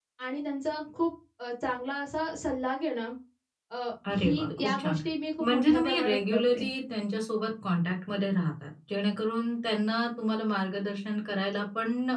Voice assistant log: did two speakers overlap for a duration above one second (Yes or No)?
Yes